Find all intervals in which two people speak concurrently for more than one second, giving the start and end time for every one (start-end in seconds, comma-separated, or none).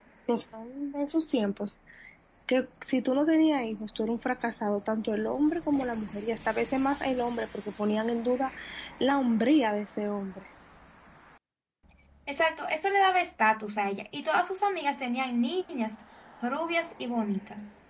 none